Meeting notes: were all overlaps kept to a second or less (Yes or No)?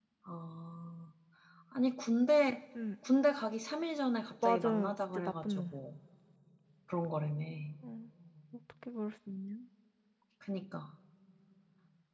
No